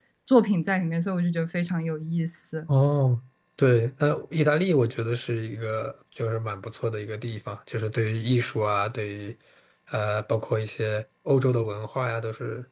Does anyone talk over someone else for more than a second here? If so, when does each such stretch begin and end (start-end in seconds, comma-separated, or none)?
none